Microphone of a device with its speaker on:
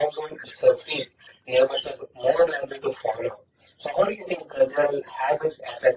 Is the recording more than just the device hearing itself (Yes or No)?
No